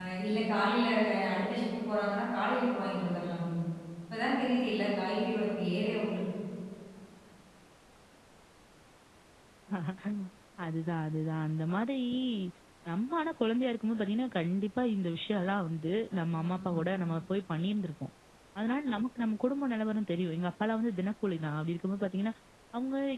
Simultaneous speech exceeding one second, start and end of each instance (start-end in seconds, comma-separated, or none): none